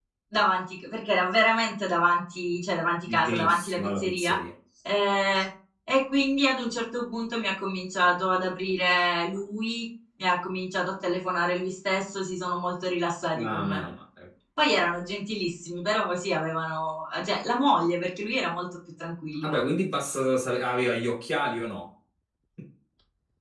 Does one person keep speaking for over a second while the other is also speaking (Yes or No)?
Yes